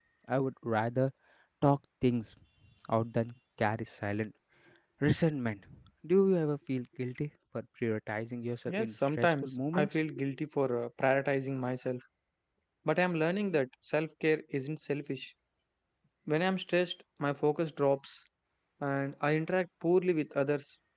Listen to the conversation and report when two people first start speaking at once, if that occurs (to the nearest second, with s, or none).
9 s